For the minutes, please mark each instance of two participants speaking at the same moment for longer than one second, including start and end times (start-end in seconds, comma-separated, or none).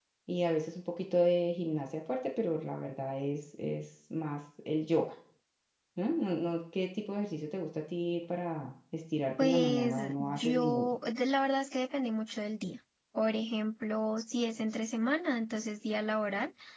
9.4-11.0